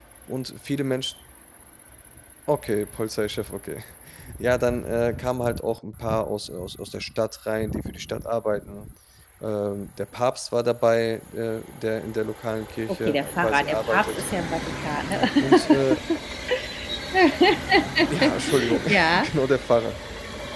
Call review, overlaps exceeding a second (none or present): present